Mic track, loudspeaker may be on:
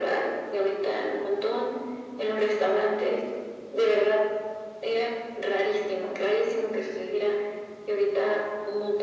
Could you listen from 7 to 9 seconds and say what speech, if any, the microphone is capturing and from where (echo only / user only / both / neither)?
echo only